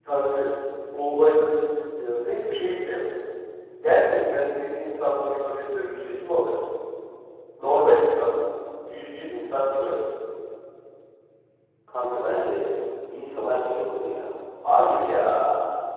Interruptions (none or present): none